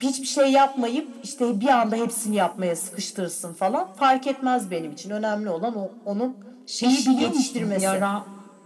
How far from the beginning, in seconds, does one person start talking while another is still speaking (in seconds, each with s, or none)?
6.8 s